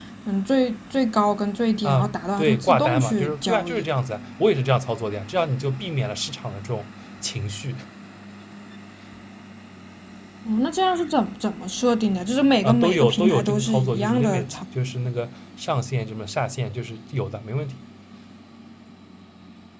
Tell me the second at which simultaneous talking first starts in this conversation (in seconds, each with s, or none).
1.8 s